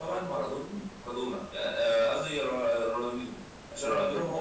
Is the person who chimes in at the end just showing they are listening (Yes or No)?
Yes